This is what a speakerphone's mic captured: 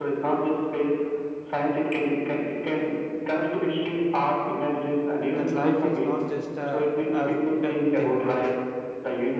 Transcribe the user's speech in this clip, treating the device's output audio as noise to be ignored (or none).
that life is not just a as a thing, right?